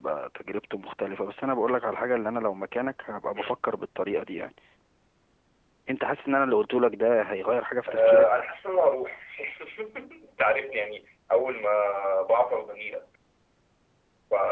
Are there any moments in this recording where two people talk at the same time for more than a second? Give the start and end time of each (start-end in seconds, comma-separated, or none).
none